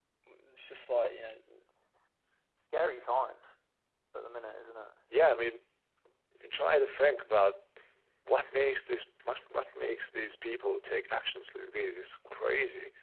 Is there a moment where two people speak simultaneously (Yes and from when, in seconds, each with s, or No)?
No